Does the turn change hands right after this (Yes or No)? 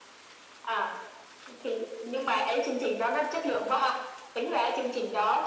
No